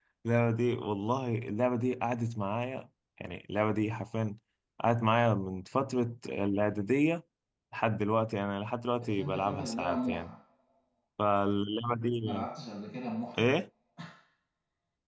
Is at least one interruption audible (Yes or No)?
Yes